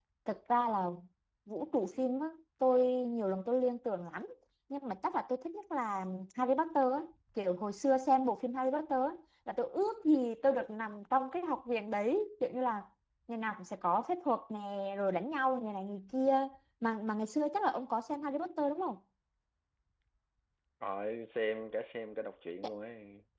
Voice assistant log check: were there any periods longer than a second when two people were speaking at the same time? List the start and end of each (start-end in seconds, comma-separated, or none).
none